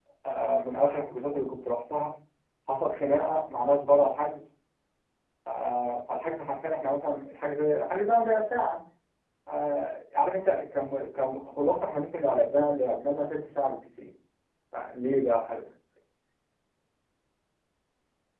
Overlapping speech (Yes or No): No